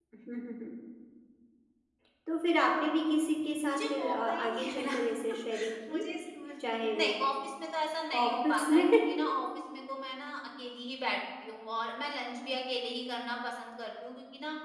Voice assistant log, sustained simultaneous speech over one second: present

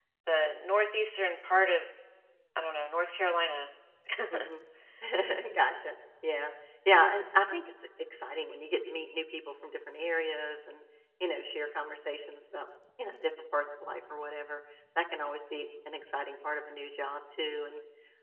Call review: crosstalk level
none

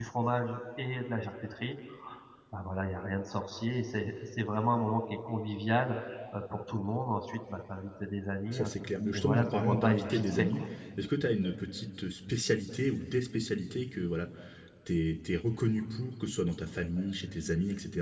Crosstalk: present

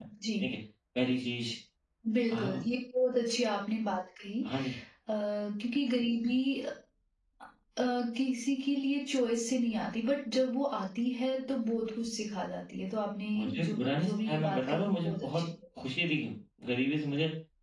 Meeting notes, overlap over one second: present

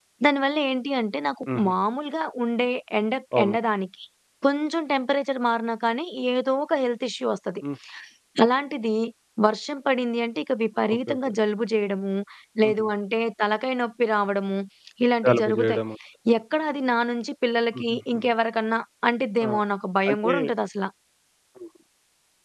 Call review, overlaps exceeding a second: none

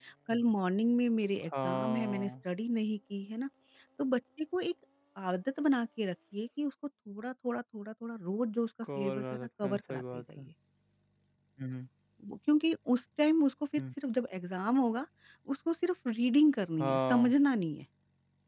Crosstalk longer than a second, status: present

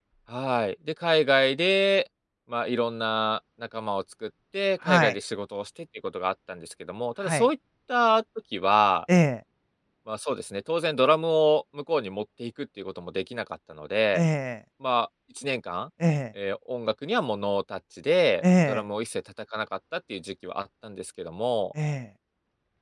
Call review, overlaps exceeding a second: none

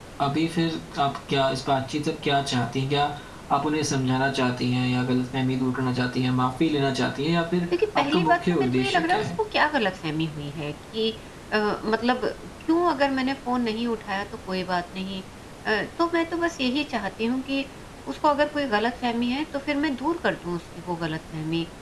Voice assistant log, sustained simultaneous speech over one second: present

